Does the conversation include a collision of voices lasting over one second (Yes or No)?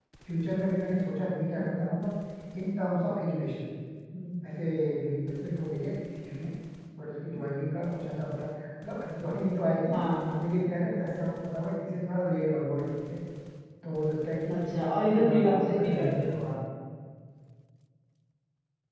Yes